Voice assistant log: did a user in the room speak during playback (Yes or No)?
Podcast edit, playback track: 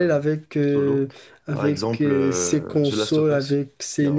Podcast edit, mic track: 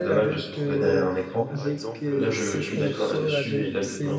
Yes